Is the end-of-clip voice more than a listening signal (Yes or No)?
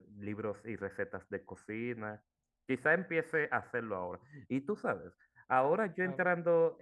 No